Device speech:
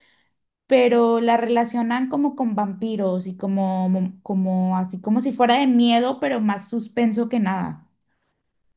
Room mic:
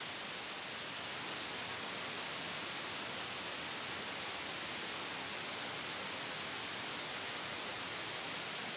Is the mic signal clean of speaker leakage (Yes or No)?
Yes